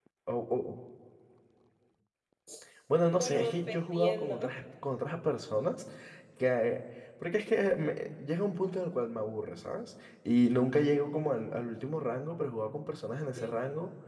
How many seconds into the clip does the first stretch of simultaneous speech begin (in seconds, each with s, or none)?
3.1 s